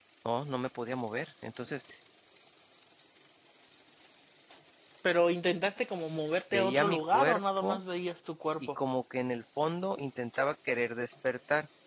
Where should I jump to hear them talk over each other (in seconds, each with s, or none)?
6.5 s